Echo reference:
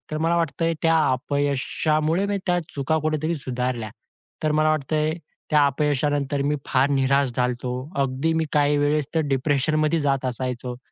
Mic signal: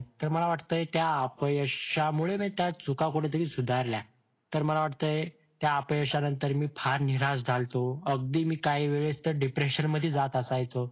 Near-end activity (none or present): none